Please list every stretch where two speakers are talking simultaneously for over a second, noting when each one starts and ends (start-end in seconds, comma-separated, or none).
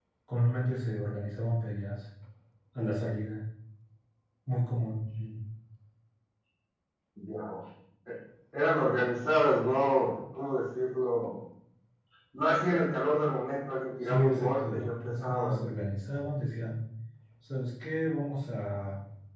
14.0-15.6